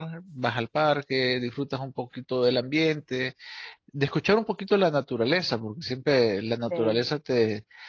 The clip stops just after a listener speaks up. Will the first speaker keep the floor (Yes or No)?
Yes